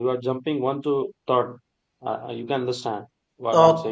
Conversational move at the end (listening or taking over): taking over